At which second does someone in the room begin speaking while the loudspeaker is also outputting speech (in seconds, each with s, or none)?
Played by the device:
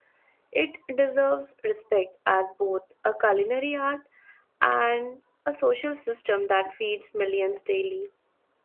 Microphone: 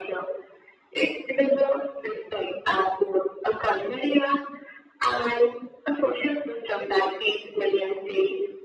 none